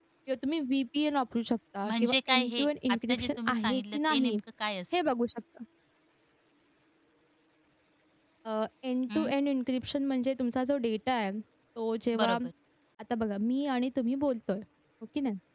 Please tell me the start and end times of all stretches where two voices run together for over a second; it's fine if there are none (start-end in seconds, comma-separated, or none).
1.9-4.3